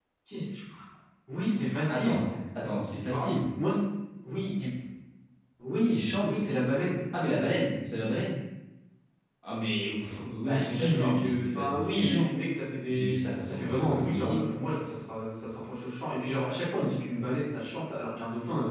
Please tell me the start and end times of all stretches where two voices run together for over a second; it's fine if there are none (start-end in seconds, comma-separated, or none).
10.4-12.3, 12.9-14.4